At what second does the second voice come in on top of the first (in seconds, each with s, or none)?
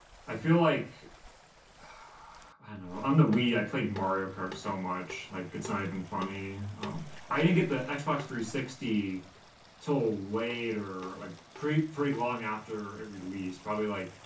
none